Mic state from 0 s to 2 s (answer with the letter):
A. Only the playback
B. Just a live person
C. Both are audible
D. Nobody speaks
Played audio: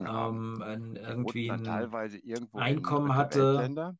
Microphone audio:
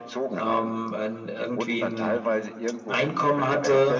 A